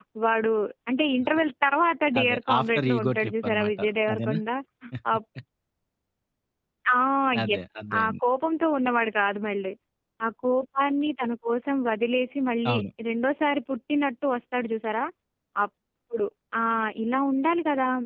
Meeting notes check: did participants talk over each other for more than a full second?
Yes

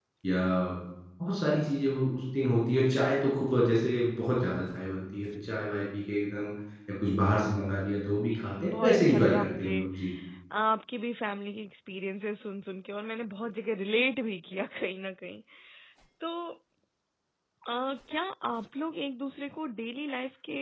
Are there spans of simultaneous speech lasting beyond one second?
Yes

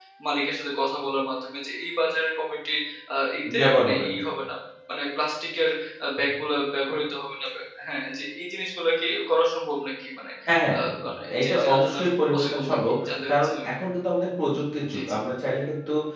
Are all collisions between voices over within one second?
No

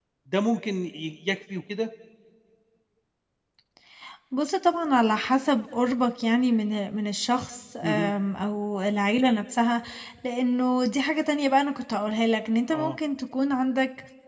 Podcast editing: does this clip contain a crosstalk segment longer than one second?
No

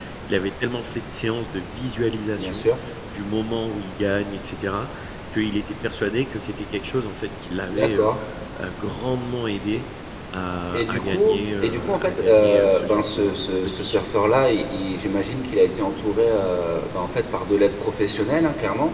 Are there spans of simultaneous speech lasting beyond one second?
Yes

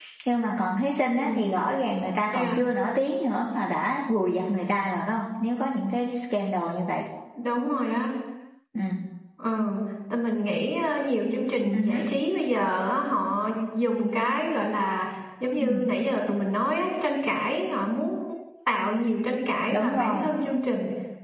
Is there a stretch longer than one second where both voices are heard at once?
No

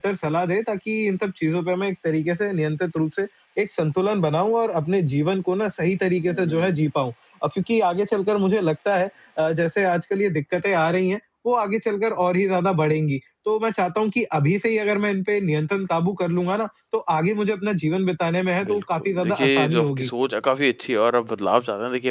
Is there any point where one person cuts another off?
Yes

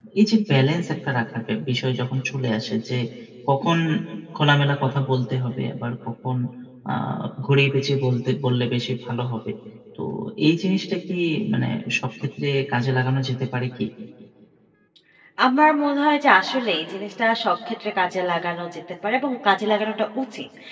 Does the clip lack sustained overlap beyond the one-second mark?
Yes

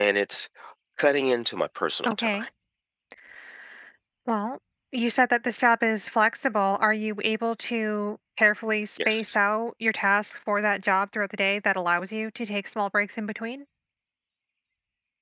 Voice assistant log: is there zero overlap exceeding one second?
Yes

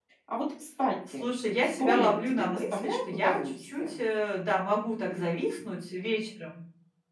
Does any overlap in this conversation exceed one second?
Yes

